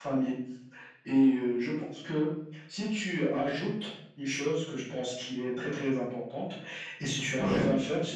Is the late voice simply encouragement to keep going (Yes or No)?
Yes